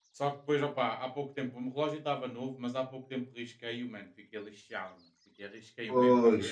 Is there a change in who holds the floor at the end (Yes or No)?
No